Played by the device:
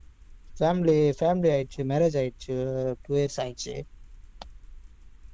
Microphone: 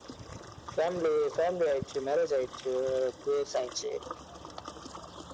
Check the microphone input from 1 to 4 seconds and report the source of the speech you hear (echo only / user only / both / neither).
echo only